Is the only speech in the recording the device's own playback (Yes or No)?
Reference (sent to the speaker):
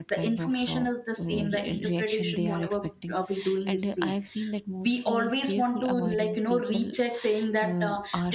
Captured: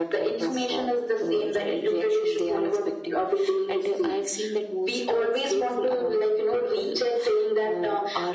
Yes